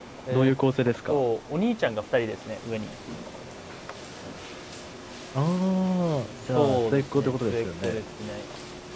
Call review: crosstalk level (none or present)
present